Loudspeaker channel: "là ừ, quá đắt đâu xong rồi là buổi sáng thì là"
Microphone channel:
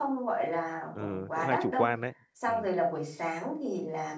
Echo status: present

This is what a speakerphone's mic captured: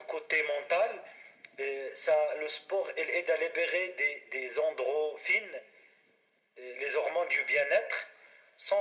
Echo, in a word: present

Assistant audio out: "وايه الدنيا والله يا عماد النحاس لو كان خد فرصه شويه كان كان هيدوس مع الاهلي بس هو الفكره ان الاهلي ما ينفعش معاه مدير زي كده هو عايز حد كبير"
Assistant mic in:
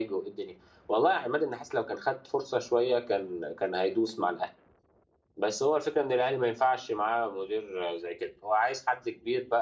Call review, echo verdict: present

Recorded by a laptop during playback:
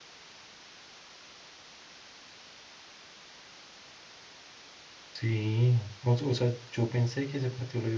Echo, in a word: none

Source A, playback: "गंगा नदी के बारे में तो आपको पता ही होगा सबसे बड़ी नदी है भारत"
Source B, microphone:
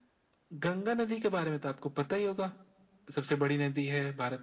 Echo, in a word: present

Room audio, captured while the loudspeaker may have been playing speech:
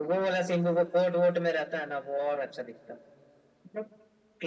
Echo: present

